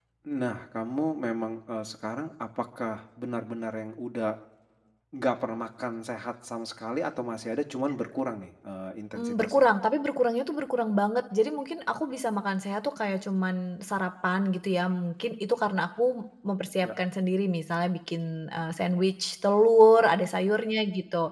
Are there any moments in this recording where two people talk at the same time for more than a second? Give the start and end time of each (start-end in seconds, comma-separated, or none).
none